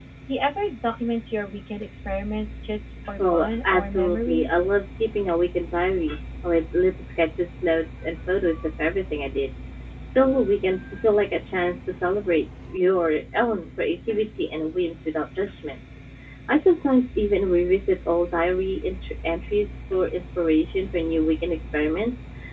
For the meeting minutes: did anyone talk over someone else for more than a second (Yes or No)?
Yes